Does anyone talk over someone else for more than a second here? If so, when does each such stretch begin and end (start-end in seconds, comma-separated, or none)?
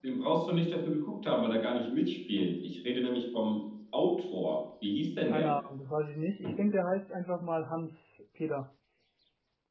none